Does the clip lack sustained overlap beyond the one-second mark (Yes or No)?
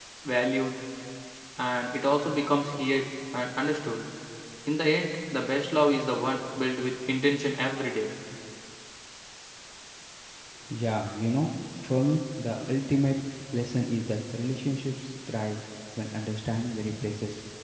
Yes